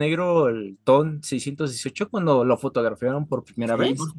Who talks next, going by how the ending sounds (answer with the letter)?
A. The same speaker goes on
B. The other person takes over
B